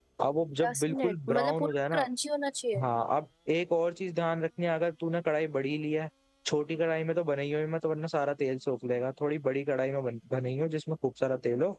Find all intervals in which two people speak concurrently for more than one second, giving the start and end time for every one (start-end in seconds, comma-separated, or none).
0.6-2.0